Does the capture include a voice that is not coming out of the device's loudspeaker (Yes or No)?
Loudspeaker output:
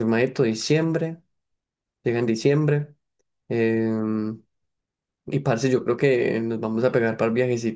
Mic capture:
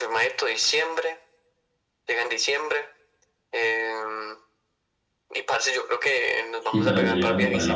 Yes